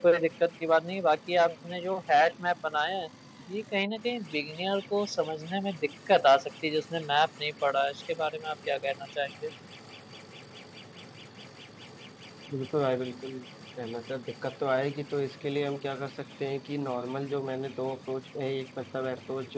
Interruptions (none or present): none